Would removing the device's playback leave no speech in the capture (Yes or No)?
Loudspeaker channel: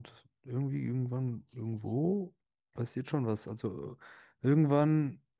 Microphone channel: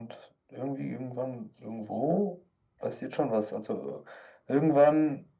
Yes